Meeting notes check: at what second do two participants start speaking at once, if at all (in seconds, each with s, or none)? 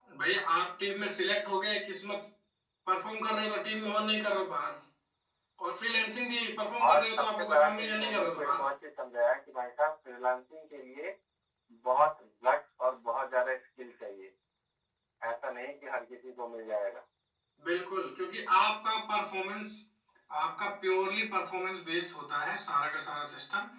6.8 s